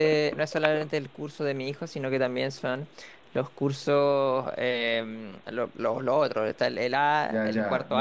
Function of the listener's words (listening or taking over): taking over